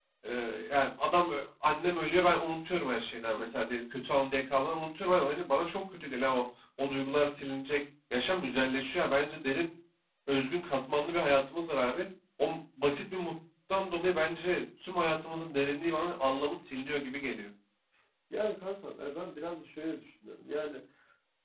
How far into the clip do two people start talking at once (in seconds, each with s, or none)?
none